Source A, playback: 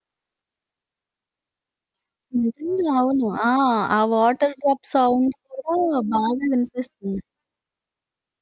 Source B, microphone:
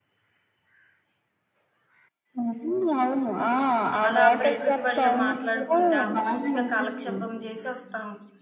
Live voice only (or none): అలా ప్రకృతి ఒళ్ళో మాట్లాడుకుంటా మంచిగా కాలక్షేపం జేసి ఒస్తాం.